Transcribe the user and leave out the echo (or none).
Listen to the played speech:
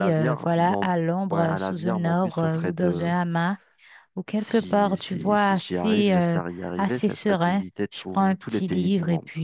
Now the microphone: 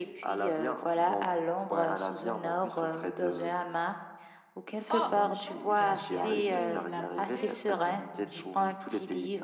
Oh, bonne chance. euh, C'est assez laborieux comme objectif.